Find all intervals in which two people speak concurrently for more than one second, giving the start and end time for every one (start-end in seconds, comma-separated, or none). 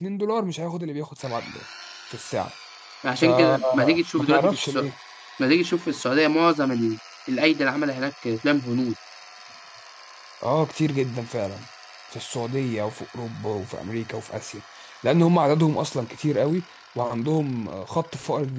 3.2-4.9